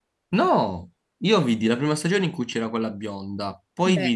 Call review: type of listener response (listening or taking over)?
listening